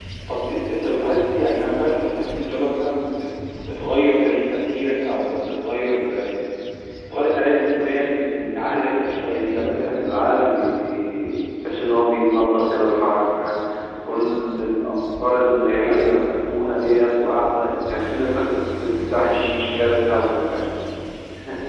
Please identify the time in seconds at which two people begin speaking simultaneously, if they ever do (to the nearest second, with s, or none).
9 s